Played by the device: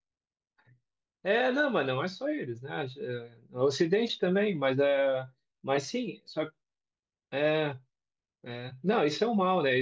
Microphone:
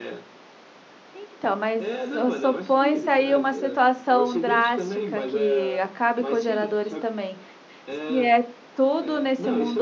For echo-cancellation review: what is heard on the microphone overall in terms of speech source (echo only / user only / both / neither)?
both